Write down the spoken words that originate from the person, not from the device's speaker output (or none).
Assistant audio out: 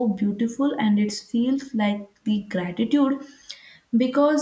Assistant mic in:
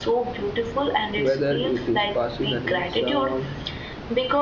whether it is passing an exam,